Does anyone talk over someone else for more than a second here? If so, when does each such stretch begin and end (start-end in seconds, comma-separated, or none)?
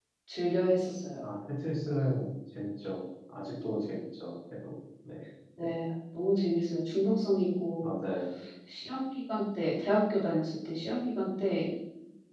none